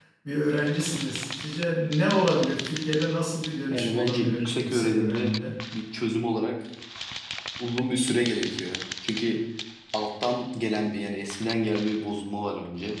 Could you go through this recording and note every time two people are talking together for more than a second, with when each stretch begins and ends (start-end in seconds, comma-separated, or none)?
3.7-5.3